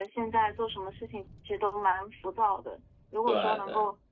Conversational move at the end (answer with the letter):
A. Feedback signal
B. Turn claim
A